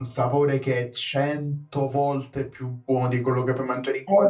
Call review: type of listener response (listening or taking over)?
taking over